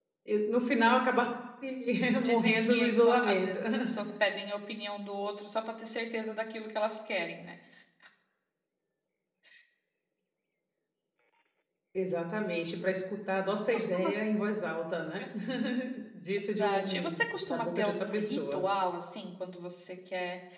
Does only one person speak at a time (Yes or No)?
No